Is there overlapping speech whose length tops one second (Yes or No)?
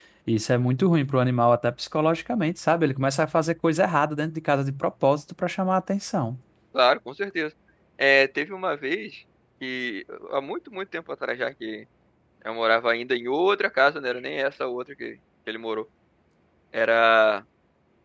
No